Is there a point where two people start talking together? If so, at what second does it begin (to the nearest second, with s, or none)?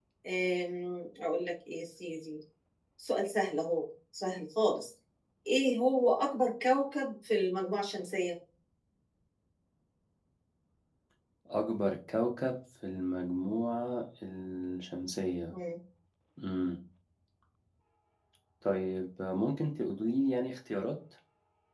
none